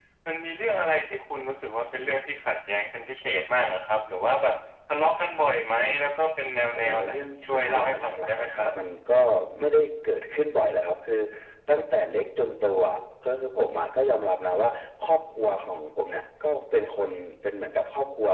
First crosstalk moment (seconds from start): 6.8 s

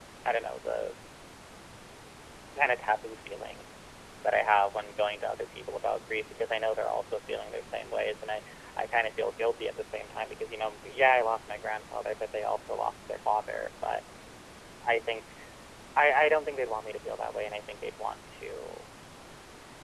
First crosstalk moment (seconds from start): none

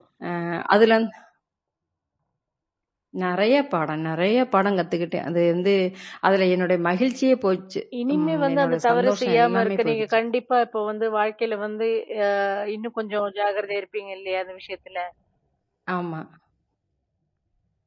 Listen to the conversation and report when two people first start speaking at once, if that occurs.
7.9 s

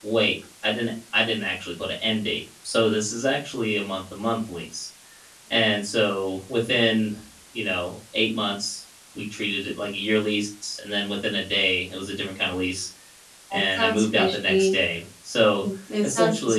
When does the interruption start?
13.5 s

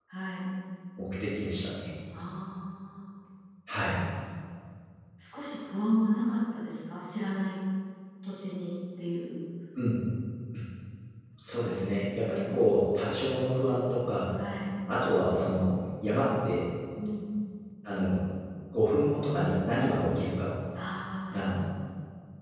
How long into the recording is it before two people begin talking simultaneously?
none

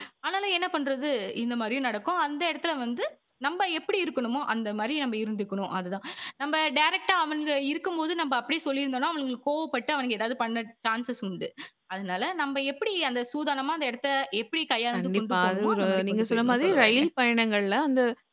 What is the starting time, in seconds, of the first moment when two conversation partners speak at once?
14.9 s

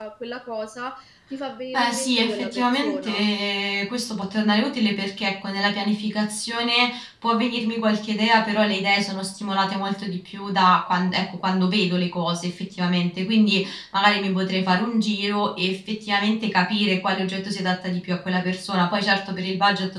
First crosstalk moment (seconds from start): 1.7 s

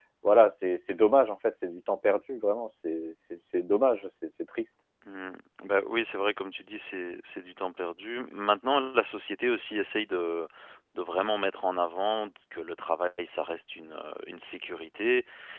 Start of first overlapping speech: none

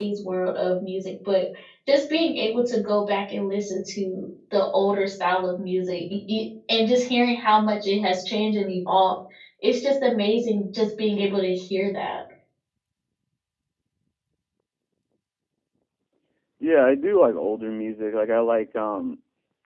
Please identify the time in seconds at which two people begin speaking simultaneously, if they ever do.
none

